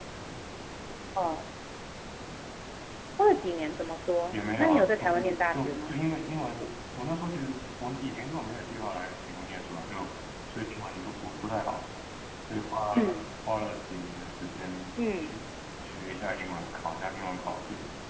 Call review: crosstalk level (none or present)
present